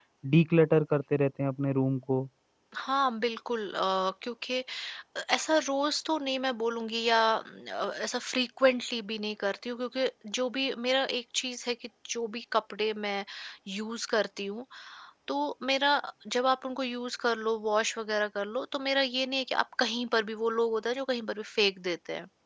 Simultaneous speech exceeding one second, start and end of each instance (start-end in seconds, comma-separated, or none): none